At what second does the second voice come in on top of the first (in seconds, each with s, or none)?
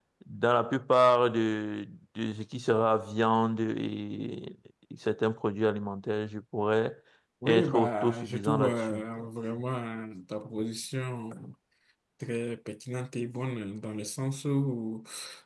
7.5 s